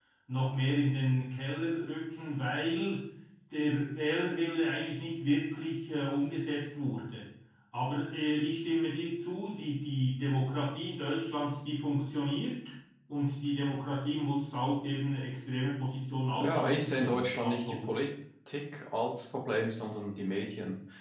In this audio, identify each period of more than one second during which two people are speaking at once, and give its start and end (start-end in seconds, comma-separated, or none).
16.4-17.9